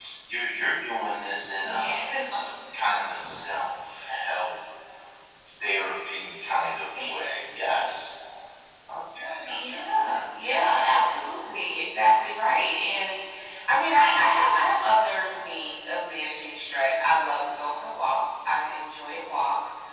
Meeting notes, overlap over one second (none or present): none